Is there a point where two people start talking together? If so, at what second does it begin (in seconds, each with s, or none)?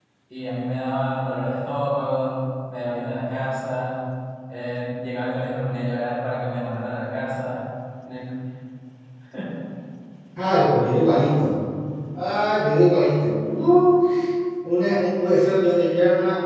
none